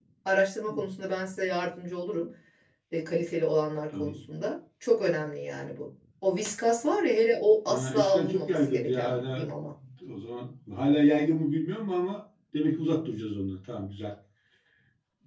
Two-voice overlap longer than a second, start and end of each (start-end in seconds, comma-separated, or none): 7.7-9.4